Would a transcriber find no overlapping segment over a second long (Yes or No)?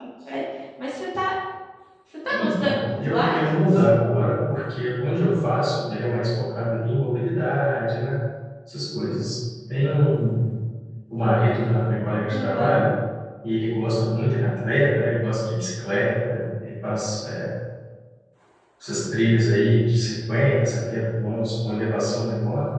No